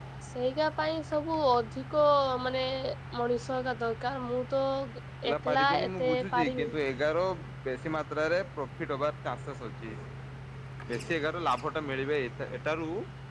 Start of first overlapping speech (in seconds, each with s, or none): 5.3 s